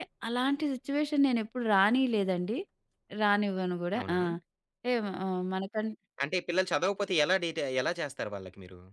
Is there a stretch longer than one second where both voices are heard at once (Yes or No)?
No